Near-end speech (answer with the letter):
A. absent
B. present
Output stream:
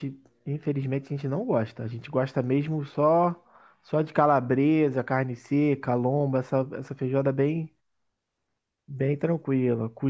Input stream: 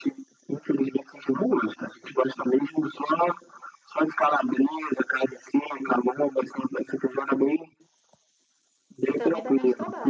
B